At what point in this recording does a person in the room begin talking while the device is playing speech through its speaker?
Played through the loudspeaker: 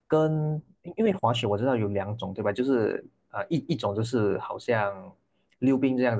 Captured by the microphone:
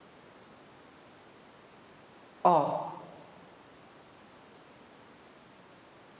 2 s

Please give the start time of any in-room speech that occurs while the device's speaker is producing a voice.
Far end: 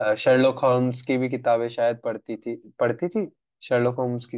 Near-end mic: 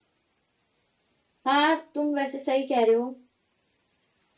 1 s

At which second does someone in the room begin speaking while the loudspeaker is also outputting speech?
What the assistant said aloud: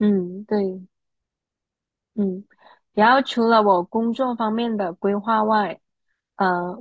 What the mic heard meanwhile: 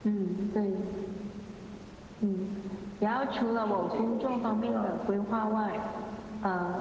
4 s

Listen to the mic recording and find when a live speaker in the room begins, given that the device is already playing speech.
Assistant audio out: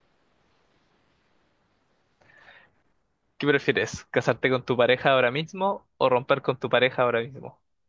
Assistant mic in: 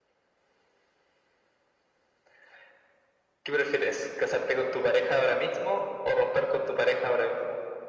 none

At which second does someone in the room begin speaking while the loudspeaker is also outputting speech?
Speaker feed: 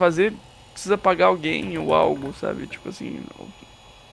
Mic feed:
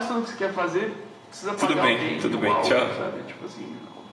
2 s

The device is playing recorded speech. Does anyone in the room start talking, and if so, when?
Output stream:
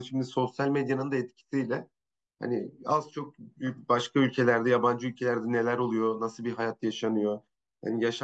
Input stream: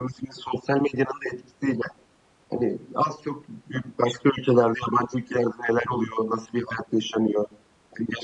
none

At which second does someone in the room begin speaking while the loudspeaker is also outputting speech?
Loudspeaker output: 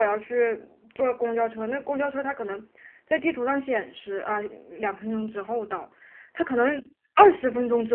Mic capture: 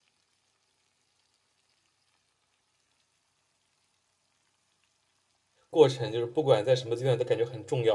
6 s

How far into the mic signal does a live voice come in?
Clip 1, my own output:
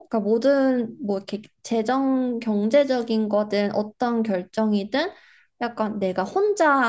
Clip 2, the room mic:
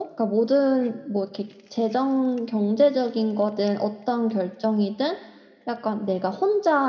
none

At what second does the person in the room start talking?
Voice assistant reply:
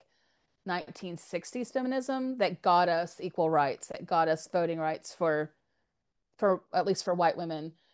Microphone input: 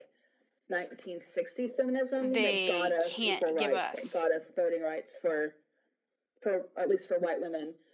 2 s

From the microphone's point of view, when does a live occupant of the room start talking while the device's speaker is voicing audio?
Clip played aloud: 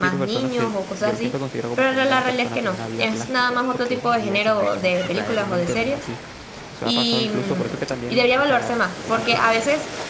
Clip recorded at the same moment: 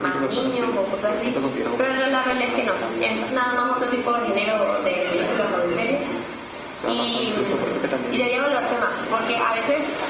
none

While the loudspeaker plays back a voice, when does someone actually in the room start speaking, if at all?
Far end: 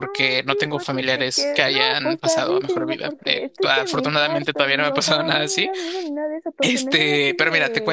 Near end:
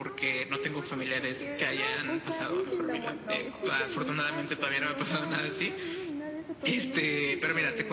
2 s

